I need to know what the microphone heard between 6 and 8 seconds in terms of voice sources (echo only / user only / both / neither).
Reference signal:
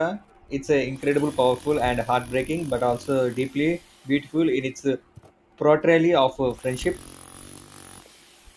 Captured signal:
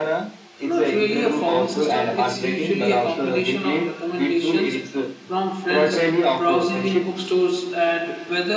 both